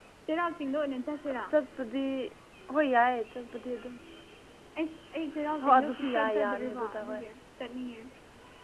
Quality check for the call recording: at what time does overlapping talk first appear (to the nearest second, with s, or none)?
6 s